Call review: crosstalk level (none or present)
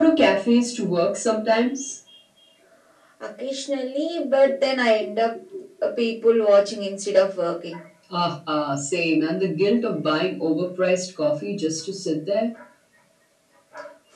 none